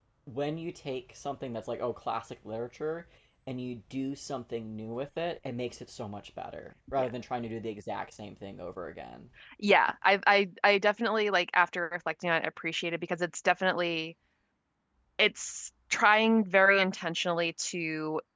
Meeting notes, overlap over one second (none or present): none